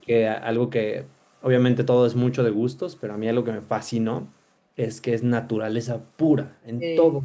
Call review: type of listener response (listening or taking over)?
listening